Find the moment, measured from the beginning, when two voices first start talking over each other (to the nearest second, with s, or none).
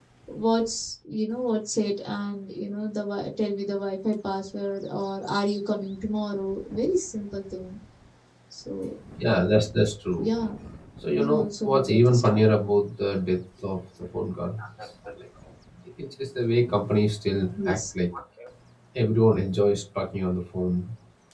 11 s